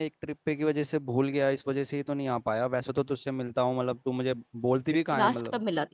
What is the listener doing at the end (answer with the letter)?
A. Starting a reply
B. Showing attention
A